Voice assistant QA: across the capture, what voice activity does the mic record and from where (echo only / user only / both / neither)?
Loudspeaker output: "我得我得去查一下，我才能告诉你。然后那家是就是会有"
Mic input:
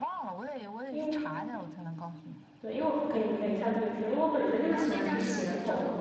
both